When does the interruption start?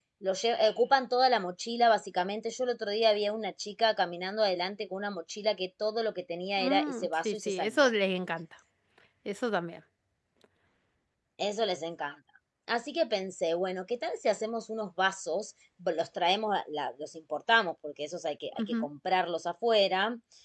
7 s

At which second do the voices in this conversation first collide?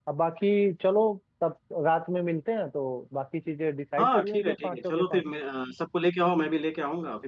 4 s

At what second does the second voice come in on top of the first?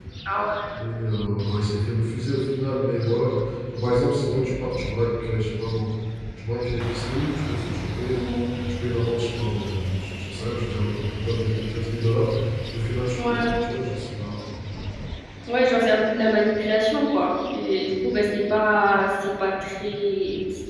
none

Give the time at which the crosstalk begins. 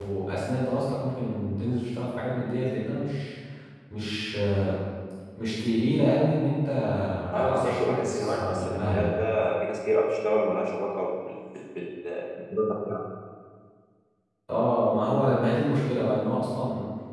7 s

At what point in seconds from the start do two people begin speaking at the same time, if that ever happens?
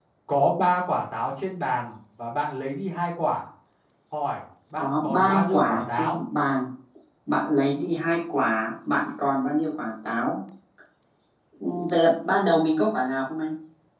5 s

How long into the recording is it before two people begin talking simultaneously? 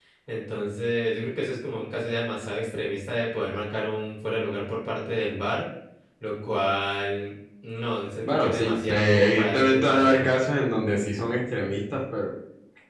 8 s

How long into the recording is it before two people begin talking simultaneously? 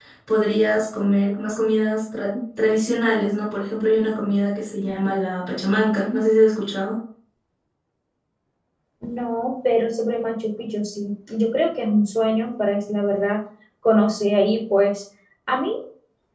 none

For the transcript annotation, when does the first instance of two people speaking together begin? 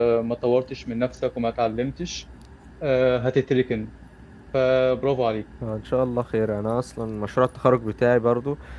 none

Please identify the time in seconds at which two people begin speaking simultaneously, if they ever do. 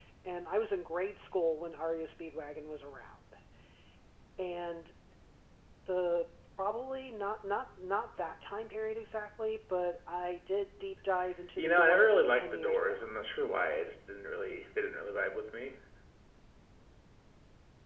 12 s

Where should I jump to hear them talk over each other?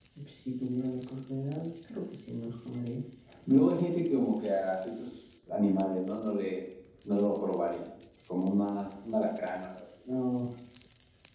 none

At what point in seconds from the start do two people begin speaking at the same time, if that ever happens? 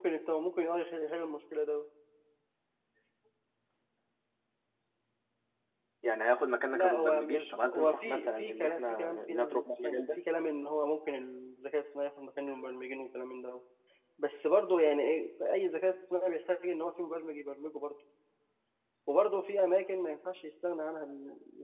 7 s

